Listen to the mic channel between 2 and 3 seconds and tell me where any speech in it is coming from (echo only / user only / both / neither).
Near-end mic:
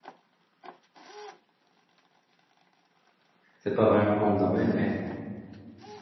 neither